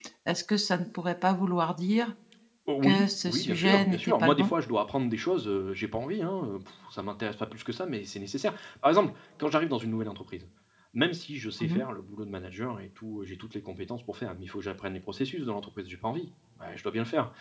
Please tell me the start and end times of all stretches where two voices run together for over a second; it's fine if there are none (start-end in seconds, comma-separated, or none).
2.8-4.5